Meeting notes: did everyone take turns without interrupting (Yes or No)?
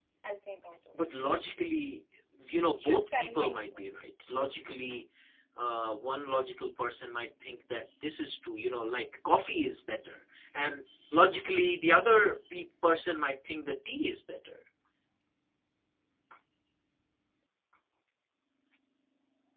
No